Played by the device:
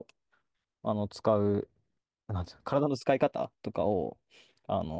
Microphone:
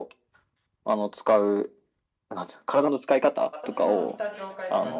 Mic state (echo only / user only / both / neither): both